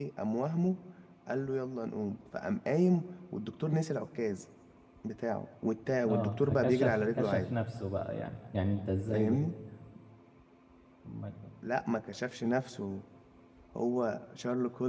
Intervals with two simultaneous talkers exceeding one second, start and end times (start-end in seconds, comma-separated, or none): 6.1-7.5